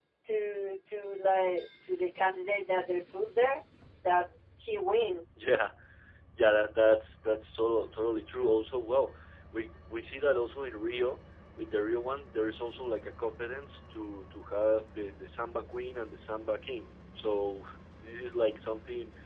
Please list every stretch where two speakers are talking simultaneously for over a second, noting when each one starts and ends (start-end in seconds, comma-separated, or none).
none